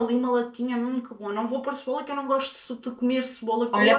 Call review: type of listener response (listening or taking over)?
taking over